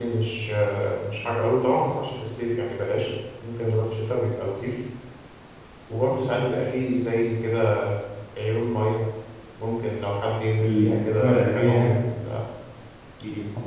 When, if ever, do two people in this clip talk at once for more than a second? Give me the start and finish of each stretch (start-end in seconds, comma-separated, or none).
10.6-12.1